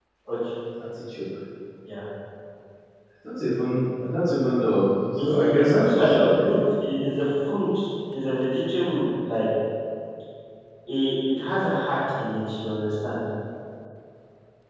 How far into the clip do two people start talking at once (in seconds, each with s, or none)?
5.2 s